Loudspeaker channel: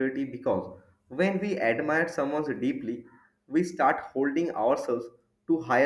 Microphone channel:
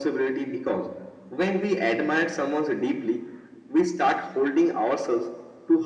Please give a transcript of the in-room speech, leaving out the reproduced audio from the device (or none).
none